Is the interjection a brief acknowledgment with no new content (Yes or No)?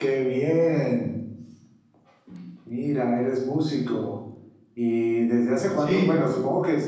Yes